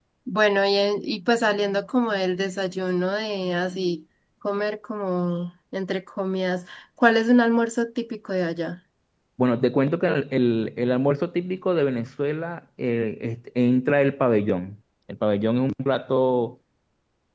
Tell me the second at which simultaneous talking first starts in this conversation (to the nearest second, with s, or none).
none